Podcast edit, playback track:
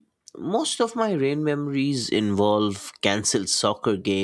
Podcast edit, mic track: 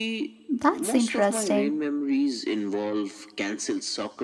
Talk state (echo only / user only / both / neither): both